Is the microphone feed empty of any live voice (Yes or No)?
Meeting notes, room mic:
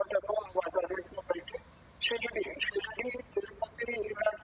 Yes